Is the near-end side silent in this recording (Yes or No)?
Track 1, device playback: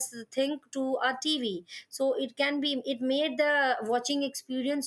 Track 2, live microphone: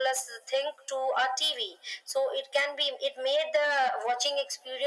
Yes